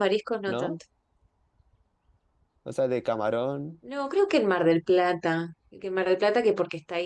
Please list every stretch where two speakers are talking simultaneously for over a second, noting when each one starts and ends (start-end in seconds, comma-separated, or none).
none